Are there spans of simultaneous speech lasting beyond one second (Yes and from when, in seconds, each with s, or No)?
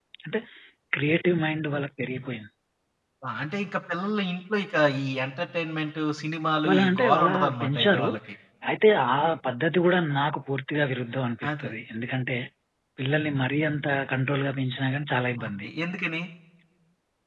Yes, from 6.7 s